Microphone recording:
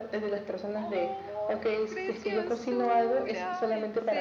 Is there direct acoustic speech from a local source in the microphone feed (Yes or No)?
Yes